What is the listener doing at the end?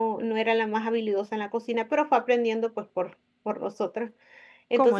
listening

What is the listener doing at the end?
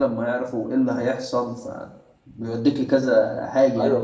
taking over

